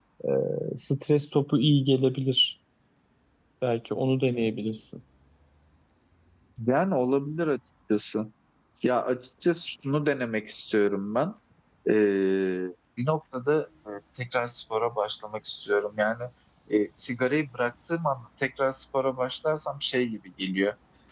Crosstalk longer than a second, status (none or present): none